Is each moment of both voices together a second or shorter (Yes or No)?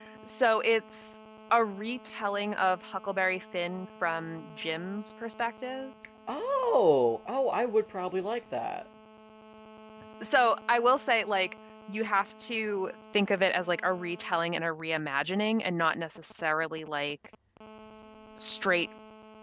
Yes